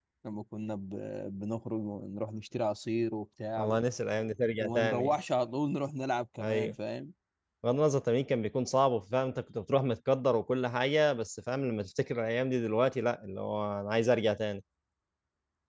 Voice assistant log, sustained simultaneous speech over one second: none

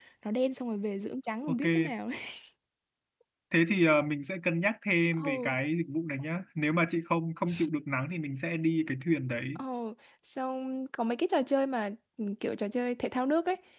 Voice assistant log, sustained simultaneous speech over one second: none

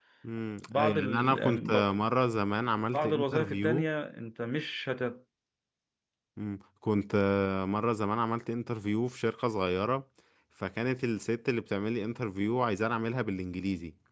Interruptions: present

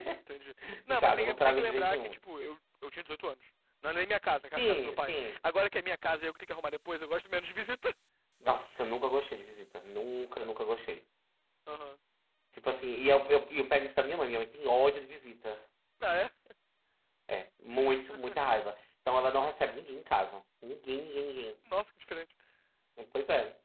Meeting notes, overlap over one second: present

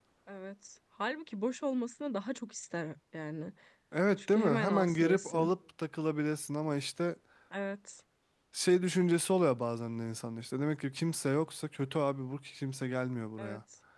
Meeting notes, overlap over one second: present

